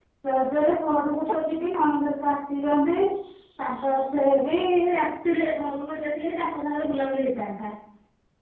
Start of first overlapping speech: none

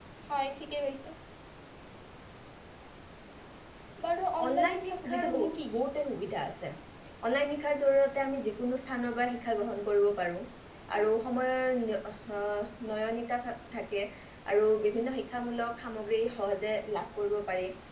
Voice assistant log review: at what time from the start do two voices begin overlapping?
4.5 s

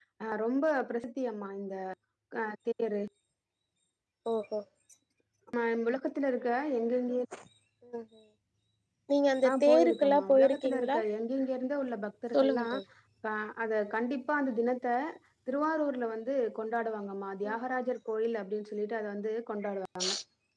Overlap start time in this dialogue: 9.5 s

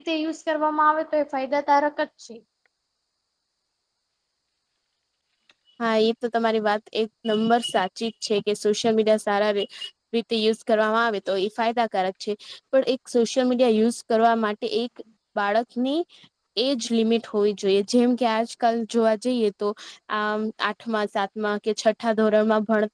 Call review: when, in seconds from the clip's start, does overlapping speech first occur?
none

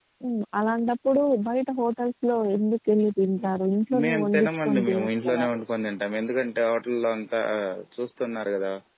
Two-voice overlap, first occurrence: 4.0 s

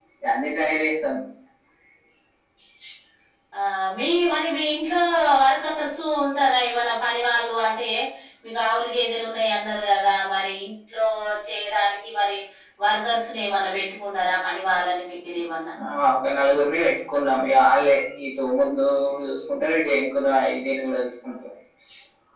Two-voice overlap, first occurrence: none

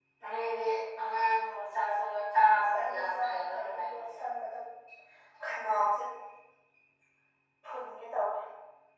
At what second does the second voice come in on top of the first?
2.5 s

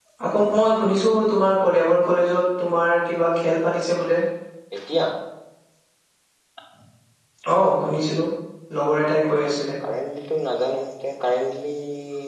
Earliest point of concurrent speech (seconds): none

